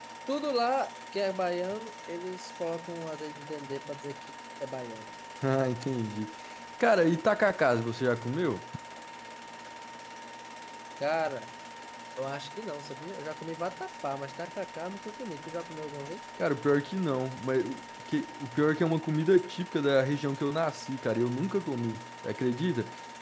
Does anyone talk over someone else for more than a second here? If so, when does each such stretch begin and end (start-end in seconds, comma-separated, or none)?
none